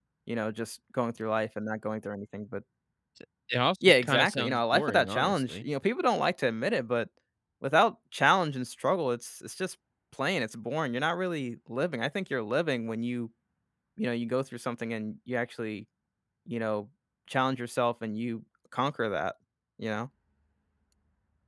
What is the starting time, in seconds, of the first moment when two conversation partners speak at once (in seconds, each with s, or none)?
3.8 s